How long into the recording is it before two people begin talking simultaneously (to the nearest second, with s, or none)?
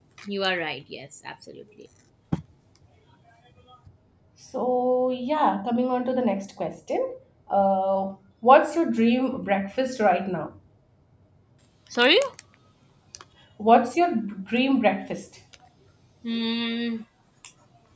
none